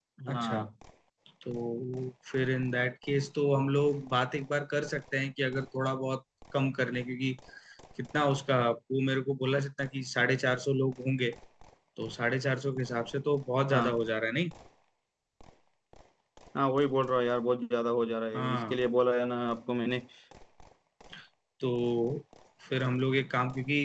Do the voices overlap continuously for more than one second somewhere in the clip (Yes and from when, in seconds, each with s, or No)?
No